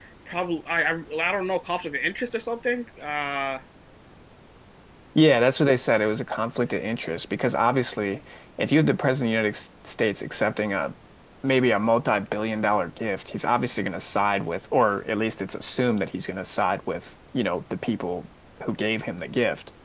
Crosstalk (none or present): none